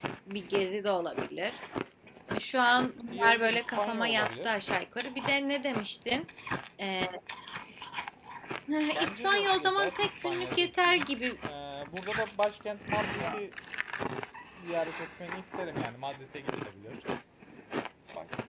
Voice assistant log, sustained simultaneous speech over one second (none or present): present